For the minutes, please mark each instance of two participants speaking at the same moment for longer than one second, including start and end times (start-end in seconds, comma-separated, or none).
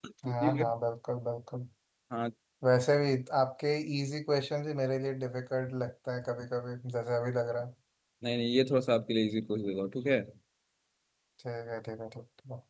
none